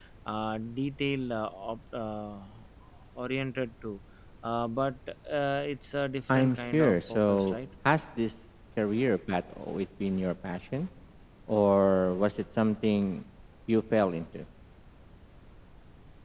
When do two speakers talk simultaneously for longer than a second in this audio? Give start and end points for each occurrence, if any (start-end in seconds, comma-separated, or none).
6.3-7.6